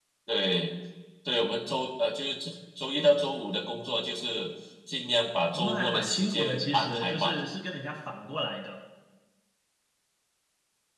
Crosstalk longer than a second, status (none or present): present